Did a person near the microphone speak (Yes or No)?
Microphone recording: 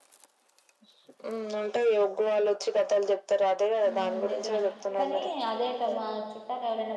Yes